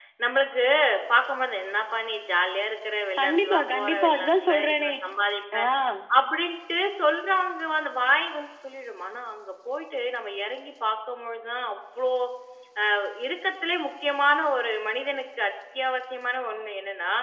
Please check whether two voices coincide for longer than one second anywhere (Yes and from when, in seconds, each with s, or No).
Yes, from 3.2 s